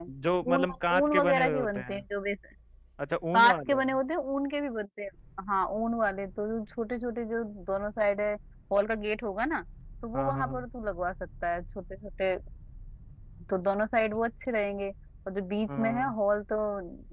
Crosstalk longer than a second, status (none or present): present